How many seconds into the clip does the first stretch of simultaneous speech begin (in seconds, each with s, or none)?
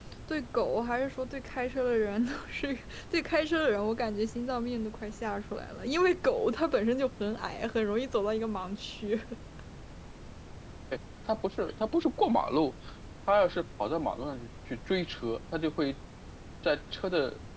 none